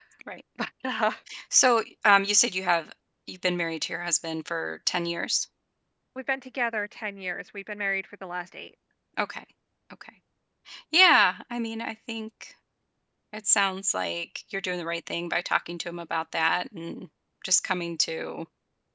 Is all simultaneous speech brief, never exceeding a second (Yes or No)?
Yes